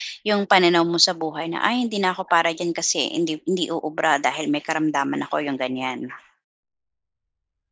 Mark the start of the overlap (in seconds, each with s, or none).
none